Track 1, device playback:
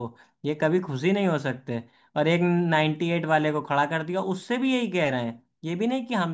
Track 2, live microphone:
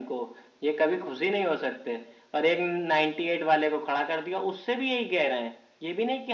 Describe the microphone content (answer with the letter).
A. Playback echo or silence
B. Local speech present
A